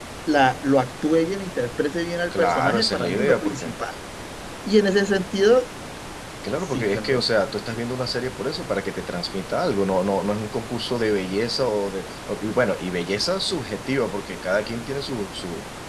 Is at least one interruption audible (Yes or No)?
Yes